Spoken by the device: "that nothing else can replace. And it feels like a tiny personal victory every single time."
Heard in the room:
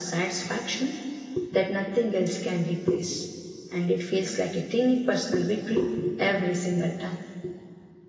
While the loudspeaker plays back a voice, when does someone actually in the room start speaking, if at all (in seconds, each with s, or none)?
none